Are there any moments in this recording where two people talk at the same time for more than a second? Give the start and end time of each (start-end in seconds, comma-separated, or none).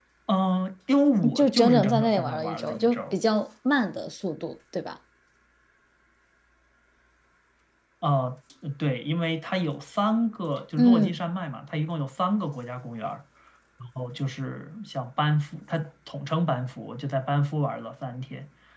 1.2-3.1